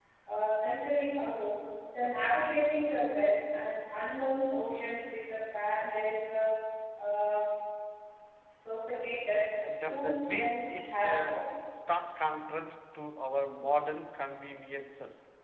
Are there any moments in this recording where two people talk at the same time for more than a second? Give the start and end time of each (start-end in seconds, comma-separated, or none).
9.9-11.4